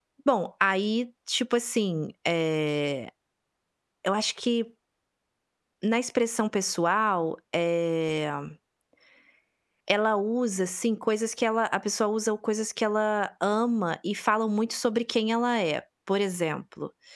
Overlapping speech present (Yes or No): No